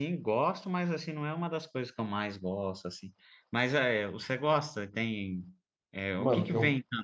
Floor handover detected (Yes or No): Yes